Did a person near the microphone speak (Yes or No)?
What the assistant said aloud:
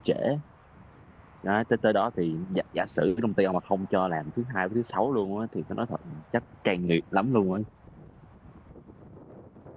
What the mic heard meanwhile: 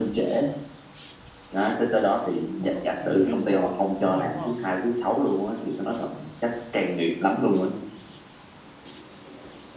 Yes